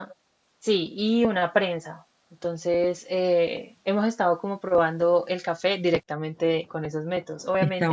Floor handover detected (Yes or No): No